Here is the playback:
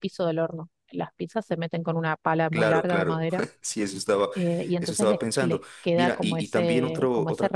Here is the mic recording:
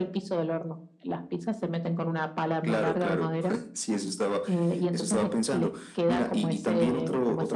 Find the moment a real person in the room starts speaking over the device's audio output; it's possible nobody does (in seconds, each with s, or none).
none